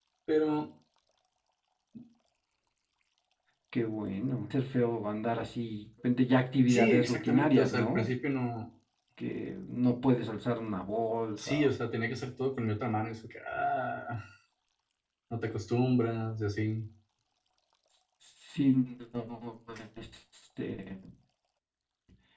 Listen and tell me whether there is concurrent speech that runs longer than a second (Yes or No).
Yes